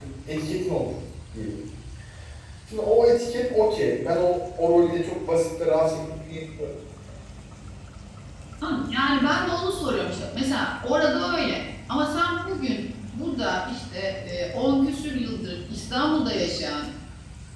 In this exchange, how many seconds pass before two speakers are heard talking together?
none

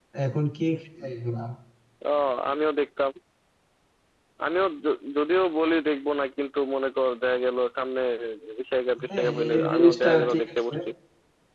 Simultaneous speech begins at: 9.1 s

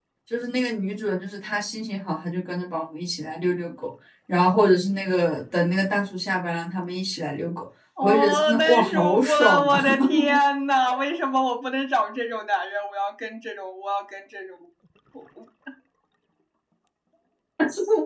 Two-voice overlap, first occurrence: 8.0 s

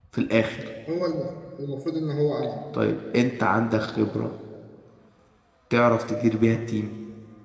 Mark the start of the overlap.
none

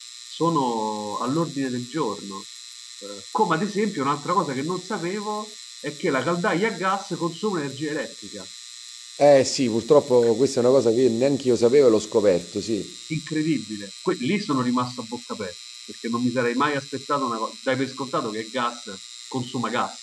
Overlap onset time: none

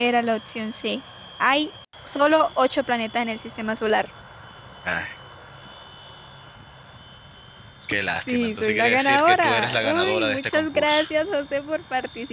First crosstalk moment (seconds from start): 8.3 s

